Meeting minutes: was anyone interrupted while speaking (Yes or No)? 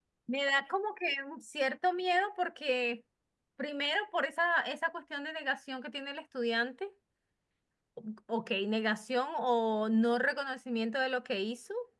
No